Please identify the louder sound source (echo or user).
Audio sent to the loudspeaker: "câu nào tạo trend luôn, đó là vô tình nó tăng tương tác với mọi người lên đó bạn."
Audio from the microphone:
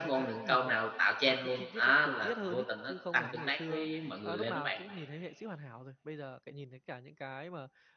echo